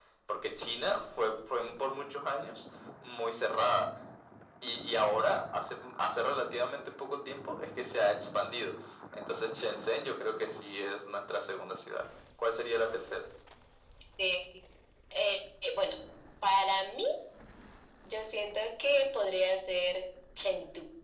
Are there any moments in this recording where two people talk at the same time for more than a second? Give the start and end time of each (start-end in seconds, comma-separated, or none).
none